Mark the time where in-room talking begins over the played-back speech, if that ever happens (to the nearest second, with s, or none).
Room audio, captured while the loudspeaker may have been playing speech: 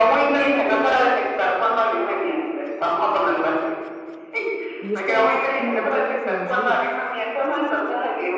5 s